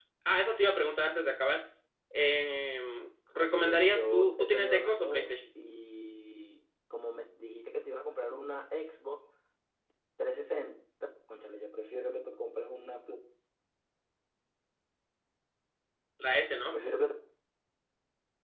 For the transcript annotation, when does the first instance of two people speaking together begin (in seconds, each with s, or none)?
3.4 s